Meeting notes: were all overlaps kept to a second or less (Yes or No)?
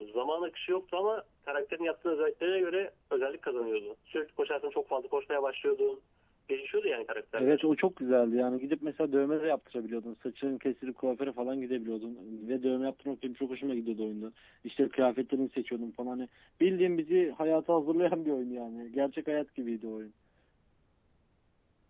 Yes